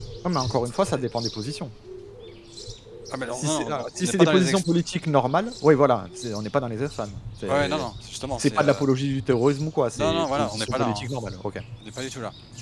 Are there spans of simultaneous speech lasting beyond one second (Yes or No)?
Yes